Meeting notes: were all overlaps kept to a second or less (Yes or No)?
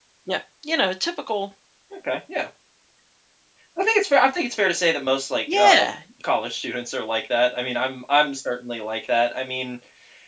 Yes